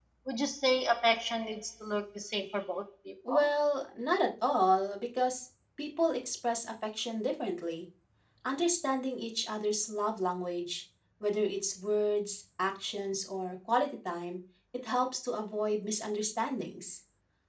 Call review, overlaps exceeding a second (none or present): none